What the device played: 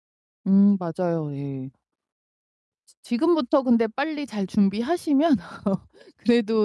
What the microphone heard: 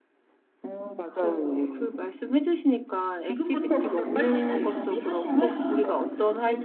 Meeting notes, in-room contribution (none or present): present